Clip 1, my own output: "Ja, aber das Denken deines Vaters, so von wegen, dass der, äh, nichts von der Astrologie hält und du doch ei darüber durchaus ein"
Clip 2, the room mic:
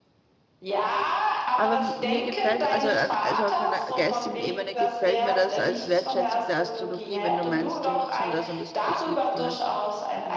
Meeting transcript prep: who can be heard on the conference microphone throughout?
both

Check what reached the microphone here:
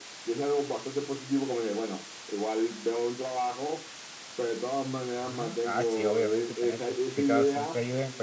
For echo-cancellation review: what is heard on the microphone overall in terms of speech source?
both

